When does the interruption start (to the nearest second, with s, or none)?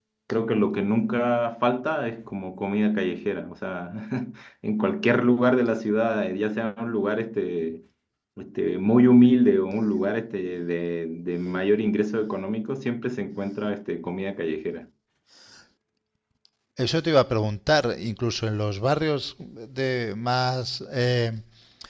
none